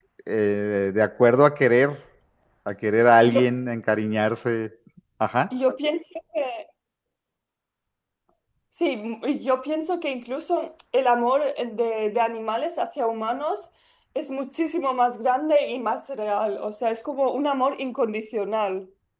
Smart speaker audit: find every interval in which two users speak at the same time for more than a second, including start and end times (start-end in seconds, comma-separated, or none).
none